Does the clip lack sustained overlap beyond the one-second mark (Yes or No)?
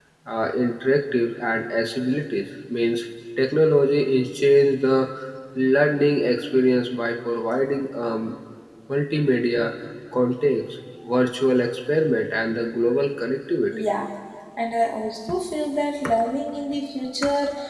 Yes